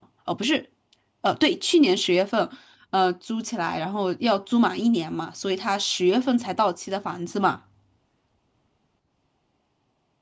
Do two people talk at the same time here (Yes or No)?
No